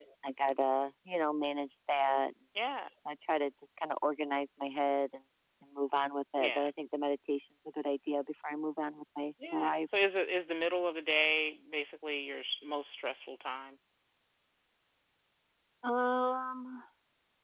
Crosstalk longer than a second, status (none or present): none